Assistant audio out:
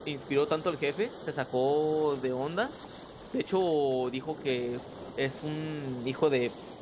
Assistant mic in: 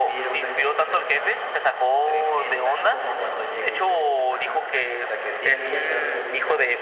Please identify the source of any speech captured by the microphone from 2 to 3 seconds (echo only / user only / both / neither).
both